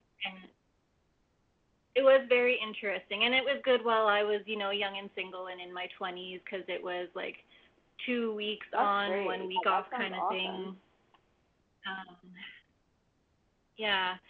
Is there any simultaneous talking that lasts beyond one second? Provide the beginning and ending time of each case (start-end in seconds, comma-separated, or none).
8.7-10.7